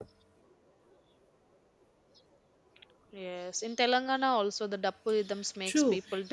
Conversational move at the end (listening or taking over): taking over